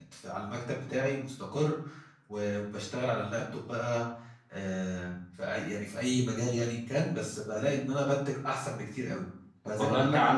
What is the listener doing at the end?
taking over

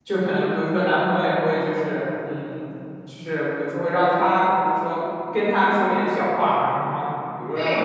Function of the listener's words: taking over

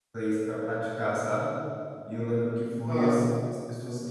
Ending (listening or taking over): listening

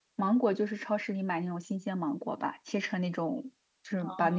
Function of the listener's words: listening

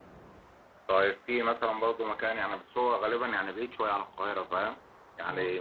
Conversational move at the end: listening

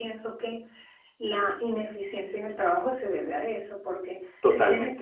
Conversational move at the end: listening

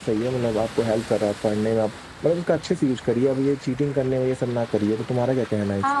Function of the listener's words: taking over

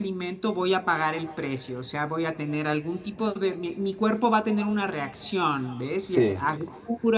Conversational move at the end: listening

